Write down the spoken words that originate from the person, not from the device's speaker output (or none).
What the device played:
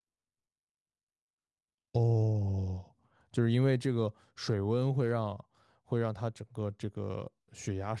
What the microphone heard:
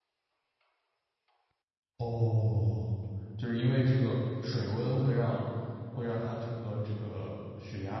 none